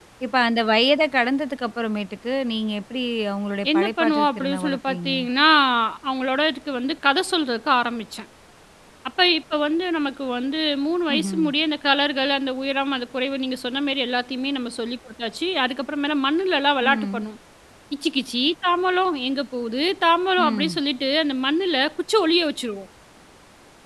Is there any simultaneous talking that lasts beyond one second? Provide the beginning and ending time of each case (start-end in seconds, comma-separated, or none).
3.7-5.1